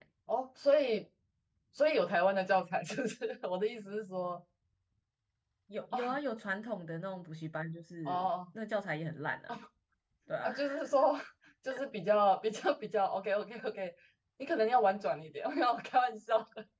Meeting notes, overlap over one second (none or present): none